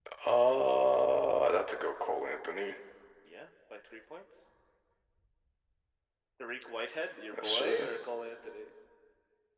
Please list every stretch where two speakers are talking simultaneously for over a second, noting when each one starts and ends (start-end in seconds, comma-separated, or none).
none